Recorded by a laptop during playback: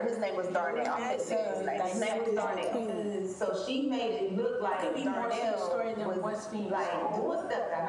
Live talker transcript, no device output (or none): Angela Bassett is is the queen.